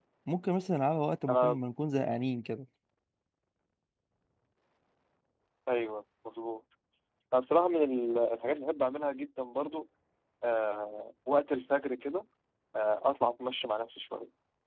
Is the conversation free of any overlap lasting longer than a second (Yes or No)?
Yes